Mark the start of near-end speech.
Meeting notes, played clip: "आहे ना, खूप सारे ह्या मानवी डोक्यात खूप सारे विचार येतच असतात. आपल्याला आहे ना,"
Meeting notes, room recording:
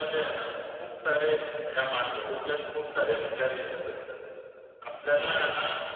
none

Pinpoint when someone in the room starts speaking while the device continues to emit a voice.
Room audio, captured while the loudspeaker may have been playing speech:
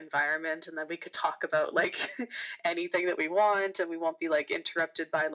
none

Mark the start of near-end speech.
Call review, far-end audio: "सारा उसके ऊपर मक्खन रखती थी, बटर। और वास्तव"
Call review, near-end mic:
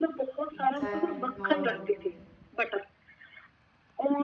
1 s

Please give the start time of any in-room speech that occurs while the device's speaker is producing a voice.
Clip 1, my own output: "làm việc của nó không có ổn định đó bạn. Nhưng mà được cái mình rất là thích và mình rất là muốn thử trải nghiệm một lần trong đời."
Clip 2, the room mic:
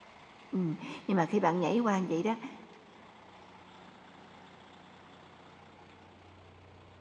1 s

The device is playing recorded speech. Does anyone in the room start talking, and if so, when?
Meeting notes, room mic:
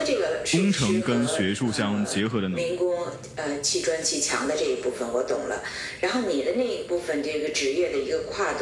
0 s

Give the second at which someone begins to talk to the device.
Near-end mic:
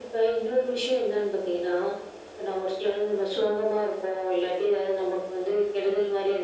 none

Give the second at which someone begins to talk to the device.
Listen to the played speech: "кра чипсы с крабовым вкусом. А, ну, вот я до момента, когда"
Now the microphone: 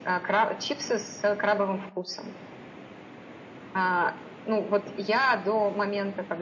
none

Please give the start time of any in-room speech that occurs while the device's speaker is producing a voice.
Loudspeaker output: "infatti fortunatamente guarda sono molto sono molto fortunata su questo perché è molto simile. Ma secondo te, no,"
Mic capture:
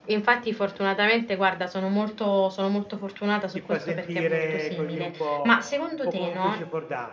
4 s

